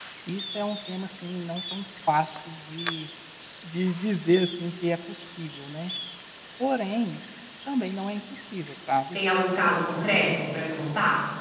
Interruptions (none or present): none